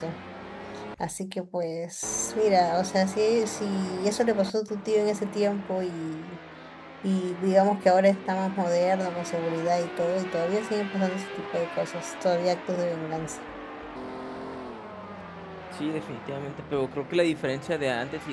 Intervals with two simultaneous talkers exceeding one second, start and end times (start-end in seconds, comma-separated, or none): none